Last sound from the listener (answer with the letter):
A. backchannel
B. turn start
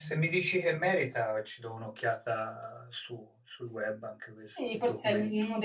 B